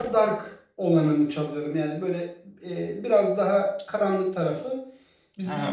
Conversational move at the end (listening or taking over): taking over